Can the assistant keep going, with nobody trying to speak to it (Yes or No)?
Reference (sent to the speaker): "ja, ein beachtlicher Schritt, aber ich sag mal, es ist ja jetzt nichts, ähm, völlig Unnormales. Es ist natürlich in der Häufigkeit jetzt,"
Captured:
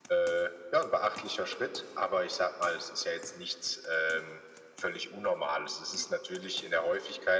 Yes